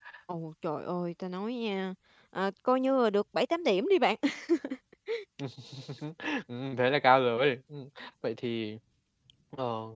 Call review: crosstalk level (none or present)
none